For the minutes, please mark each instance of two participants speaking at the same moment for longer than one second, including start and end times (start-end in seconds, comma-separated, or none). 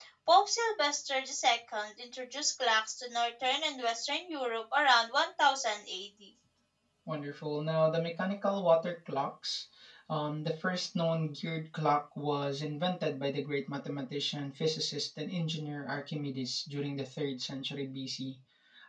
none